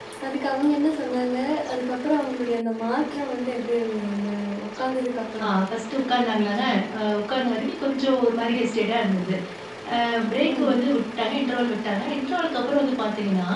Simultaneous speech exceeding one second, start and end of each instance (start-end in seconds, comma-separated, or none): none